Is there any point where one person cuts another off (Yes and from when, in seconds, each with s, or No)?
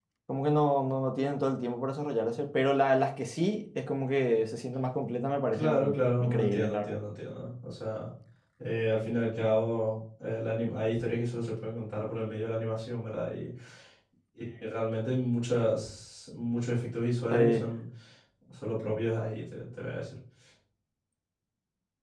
Yes, from 5.5 s